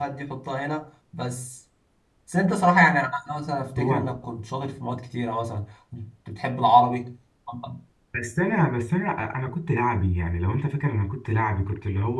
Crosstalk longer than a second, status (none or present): none